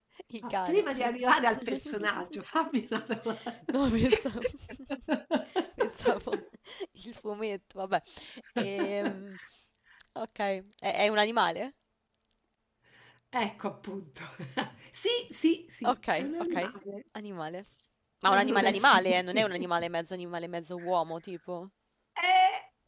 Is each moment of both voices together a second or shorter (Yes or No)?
No